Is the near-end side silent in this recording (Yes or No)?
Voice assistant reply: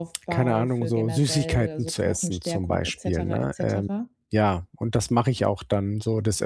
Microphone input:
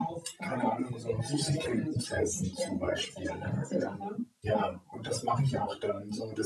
Yes